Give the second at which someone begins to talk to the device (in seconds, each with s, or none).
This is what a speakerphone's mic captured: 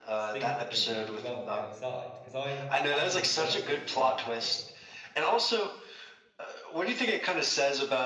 0.3 s